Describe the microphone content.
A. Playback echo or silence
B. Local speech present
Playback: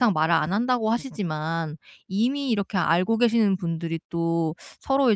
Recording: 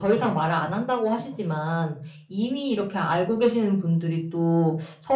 A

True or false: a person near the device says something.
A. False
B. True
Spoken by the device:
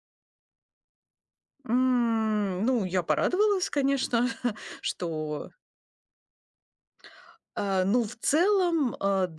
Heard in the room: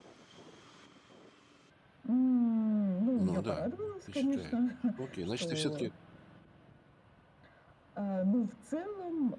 B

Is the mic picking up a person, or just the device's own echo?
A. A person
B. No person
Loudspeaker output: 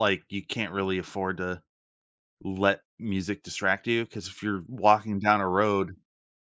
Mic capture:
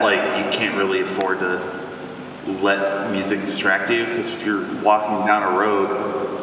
B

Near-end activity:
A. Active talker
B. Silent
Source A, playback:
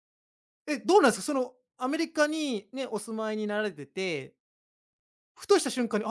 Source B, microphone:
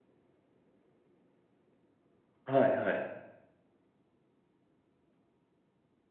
A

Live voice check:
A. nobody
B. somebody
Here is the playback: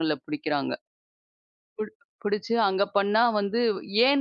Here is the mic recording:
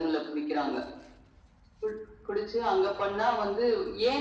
A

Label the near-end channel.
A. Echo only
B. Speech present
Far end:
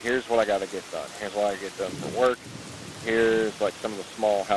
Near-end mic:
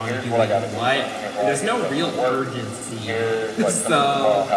B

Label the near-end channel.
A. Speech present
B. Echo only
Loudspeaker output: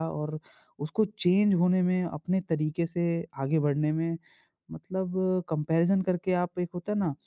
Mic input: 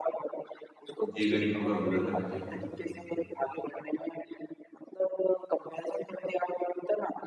A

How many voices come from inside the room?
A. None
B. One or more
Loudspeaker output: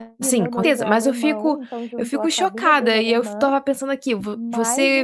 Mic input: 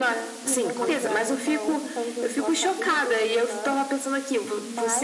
A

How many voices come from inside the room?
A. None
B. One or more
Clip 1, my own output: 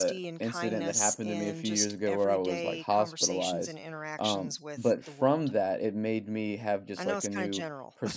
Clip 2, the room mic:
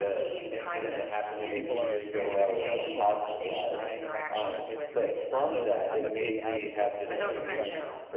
B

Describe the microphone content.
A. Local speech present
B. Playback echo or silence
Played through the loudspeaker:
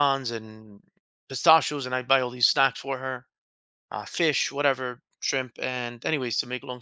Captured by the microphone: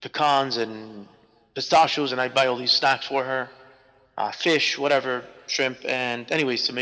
B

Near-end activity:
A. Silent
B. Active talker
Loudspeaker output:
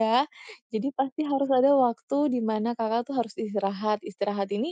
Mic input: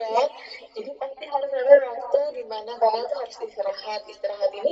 A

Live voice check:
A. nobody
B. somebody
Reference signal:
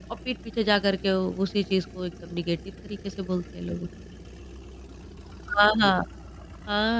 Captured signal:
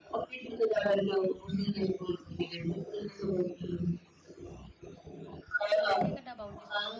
B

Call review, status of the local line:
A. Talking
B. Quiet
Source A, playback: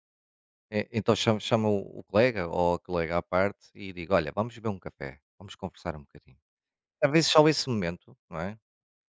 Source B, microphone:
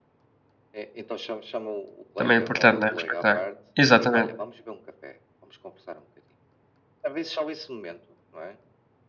A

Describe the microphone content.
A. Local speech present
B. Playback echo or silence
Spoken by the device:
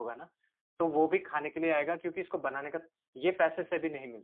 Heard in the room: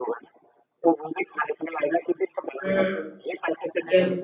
A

